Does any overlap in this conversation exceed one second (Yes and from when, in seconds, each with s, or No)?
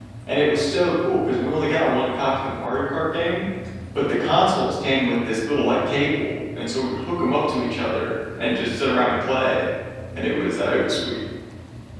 No